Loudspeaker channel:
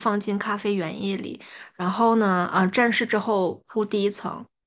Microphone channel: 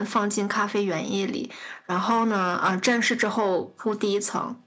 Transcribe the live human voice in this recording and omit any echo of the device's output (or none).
none